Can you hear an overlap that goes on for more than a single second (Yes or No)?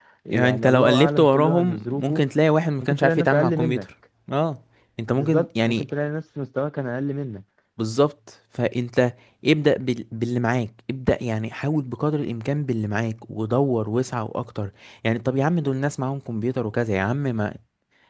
Yes